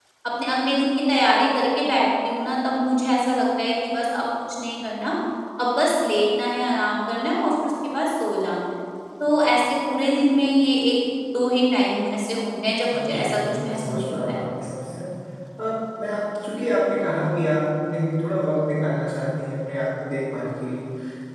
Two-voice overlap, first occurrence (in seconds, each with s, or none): 12.9 s